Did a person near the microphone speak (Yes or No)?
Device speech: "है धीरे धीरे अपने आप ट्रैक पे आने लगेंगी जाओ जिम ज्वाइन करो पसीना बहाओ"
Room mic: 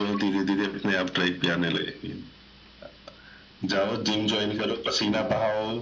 No